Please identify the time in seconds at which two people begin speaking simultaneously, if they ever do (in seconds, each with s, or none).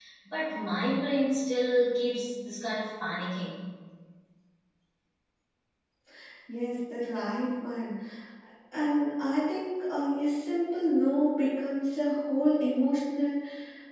none